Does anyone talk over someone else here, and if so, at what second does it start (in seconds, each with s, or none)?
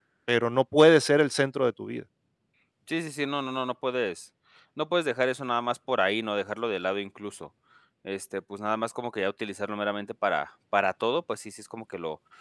none